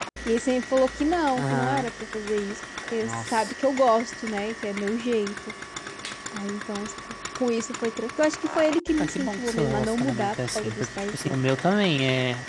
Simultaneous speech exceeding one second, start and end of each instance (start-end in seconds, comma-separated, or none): 9.0-11.4